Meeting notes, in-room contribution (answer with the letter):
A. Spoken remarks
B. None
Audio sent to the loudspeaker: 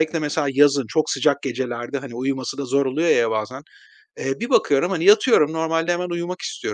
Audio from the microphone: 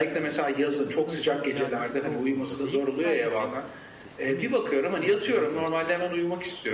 A